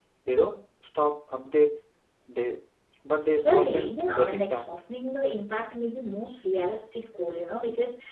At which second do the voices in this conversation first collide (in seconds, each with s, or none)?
3.4 s